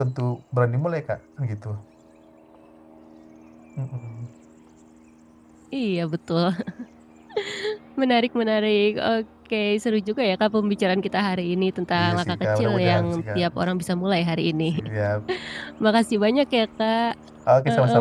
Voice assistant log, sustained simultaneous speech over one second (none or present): present